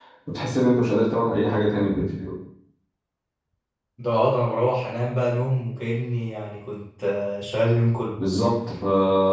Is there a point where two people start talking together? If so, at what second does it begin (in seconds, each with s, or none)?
none